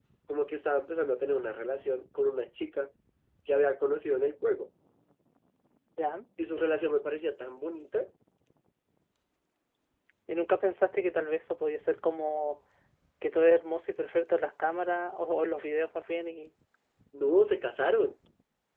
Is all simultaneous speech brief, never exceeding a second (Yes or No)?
Yes